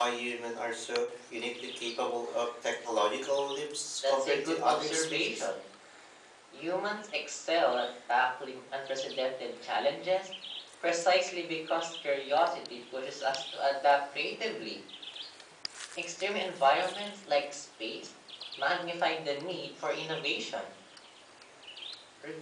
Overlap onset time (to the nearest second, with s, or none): 4 s